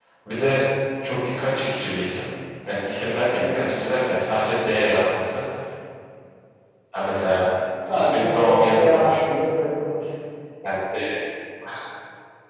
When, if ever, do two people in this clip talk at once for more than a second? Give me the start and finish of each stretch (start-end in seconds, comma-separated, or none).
7.9-9.1